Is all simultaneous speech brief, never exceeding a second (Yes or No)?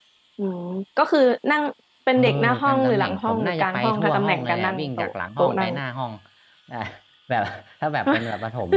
No